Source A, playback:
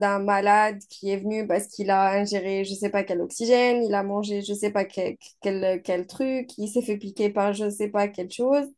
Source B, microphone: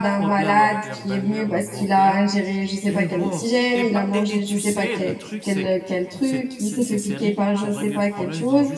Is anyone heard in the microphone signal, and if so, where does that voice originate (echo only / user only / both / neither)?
both